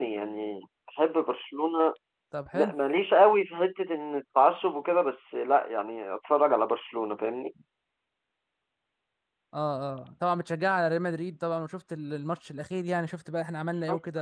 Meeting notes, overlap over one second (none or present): none